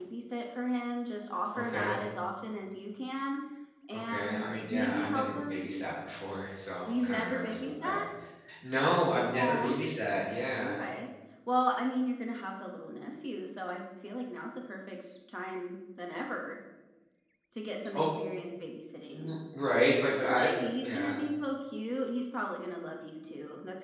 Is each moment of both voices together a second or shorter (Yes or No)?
No